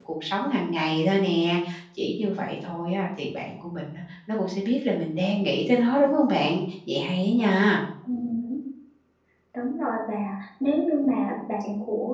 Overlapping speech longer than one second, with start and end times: none

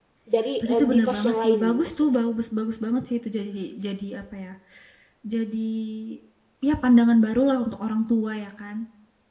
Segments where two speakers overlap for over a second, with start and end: 0.6-2.1

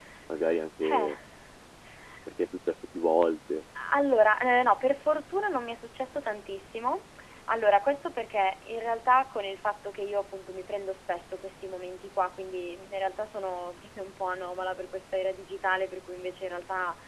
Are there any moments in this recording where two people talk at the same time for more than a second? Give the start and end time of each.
none

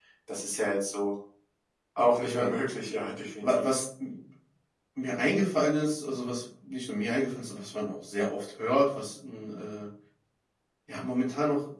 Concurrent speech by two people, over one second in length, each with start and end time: none

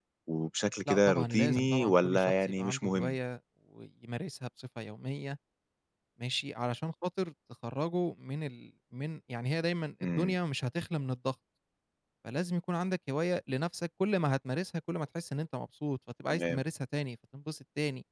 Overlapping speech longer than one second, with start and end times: 0.9-3.1

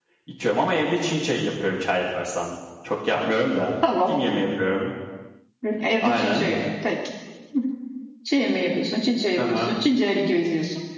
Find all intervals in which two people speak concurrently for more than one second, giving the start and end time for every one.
none

